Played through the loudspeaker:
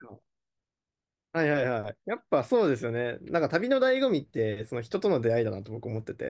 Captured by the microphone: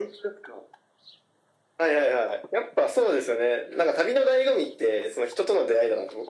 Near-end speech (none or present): none